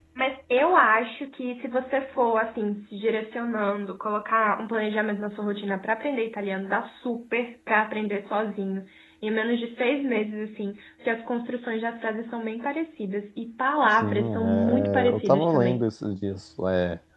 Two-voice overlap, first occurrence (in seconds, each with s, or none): 14.0 s